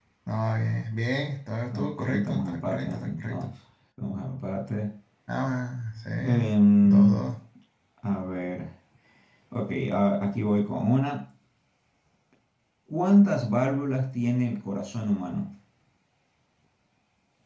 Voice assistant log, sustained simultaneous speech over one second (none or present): present